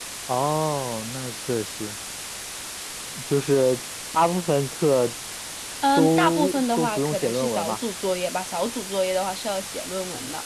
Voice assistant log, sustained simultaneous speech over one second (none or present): present